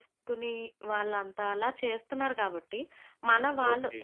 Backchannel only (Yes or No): Yes